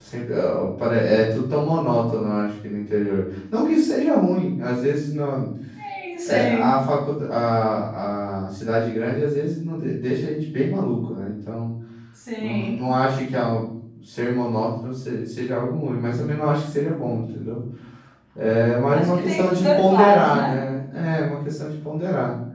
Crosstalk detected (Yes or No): Yes